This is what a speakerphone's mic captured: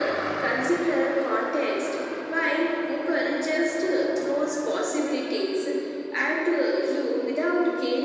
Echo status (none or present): present